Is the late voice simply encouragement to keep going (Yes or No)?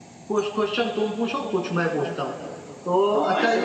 No